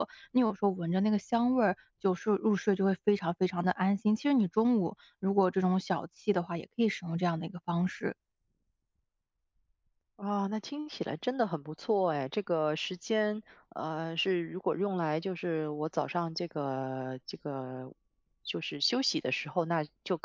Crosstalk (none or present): none